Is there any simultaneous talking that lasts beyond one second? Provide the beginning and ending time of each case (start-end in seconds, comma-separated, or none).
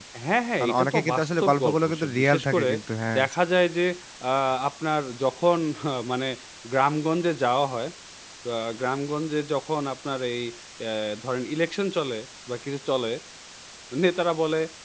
0.6-2.7